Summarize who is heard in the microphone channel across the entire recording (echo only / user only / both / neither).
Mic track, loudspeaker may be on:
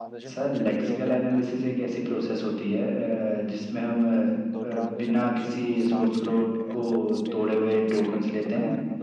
both